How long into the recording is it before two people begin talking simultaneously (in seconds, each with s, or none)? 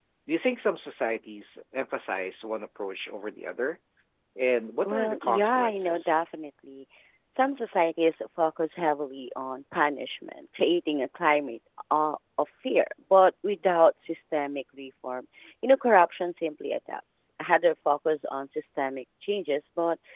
4.8 s